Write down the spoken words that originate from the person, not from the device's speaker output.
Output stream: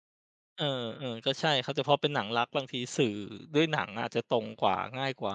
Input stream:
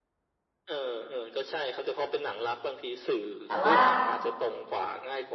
แต่ว่า

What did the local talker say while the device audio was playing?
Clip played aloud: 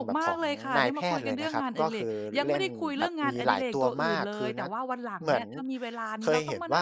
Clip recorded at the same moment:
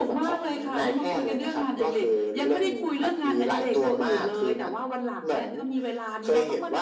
none

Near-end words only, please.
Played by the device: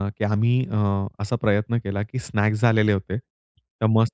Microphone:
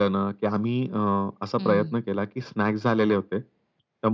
हं.

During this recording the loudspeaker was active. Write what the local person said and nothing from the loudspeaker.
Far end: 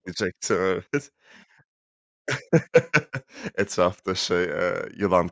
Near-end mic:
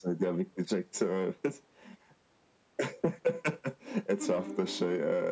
Hı hı.

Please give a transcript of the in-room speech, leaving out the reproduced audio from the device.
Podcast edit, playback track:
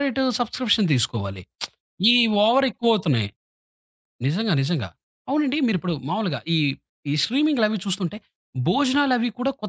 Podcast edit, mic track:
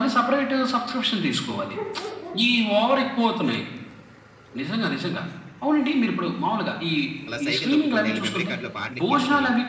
అలా సైకిల్ దొక్కుకుంటా వెళ్లి మెమరీ కార్డ్‌లో పాటలెక్కించుకొని

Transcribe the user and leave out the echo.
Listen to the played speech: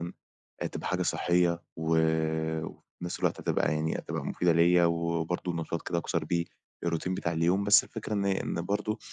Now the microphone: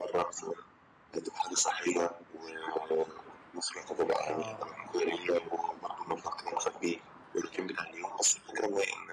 آه.

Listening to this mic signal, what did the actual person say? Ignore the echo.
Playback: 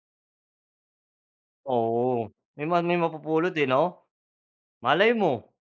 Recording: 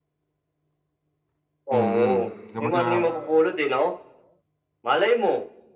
Mm kumbaga

